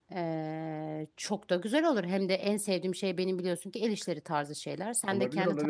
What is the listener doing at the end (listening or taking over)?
taking over